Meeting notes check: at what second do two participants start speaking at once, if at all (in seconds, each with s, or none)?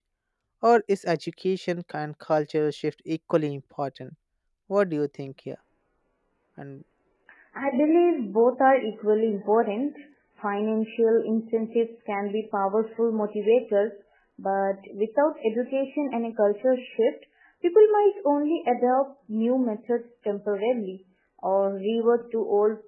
none